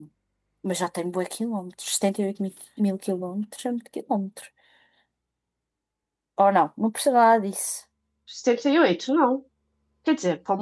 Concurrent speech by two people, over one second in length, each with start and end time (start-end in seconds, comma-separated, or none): none